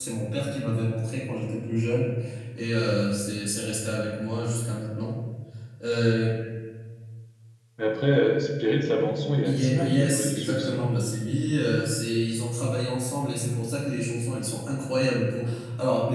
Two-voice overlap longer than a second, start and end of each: 9.4-10.9

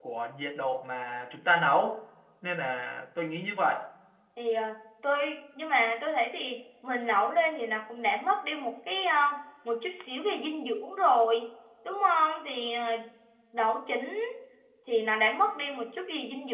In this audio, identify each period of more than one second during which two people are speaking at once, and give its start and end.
none

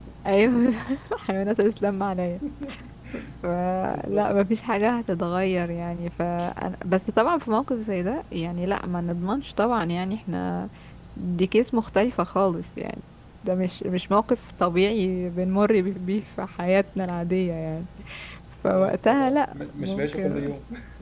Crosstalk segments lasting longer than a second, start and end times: 18.7-20.5

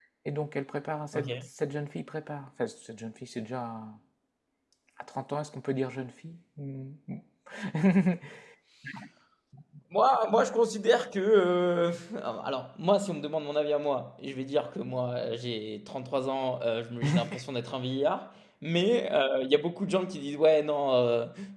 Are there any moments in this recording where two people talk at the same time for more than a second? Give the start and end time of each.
none

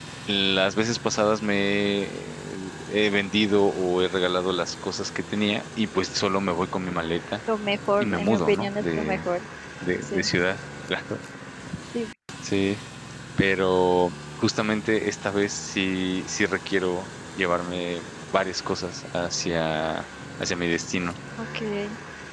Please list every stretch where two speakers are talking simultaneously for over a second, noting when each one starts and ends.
8.0-9.3

